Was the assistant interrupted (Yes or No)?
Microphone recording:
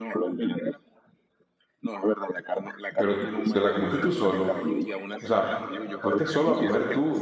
Yes